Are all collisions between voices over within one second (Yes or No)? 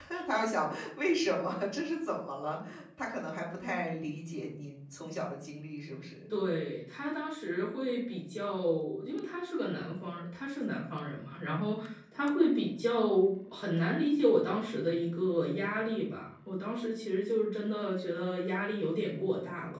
Yes